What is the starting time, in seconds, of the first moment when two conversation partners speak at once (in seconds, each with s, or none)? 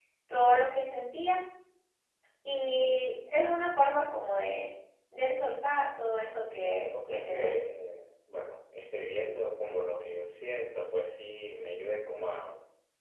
6.2 s